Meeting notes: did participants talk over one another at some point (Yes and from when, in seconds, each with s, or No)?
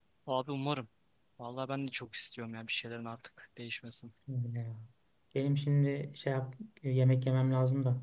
No